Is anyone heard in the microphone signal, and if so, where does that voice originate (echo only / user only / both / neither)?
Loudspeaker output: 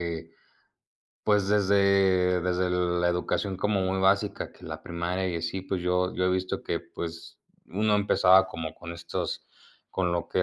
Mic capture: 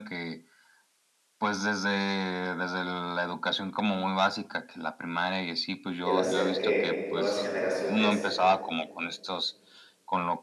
both